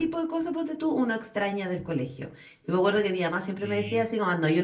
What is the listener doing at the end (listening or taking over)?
listening